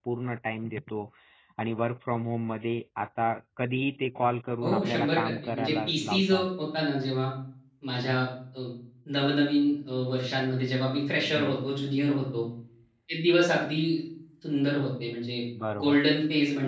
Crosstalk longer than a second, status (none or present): present